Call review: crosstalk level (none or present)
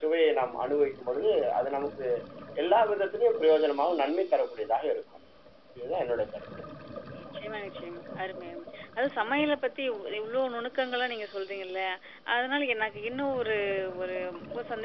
none